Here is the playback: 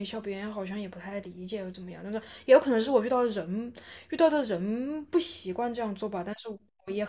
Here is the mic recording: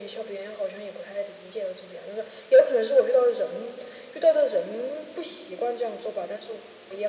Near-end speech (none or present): none